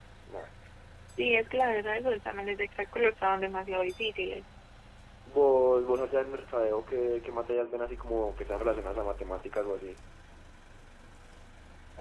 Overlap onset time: none

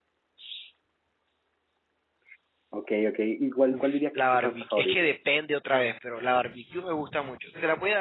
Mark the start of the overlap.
4 s

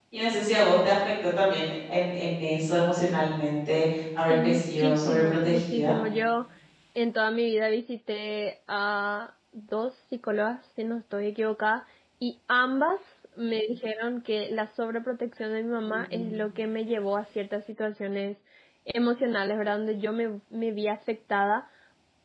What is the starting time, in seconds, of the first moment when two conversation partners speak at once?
4 s

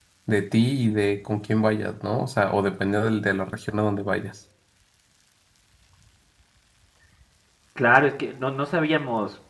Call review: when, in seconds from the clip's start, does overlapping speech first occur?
none

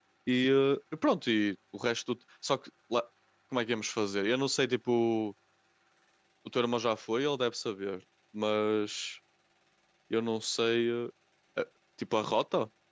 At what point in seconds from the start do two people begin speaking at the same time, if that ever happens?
none

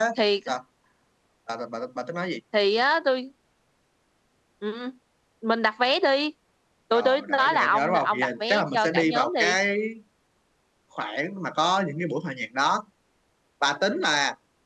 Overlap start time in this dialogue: 7 s

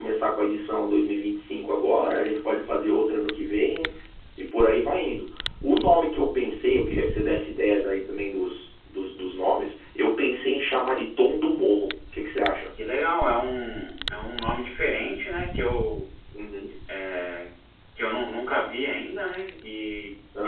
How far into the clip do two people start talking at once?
none

